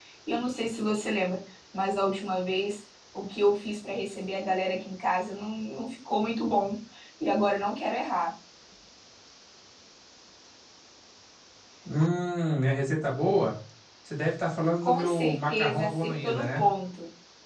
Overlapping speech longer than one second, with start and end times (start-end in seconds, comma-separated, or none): 14.8-16.7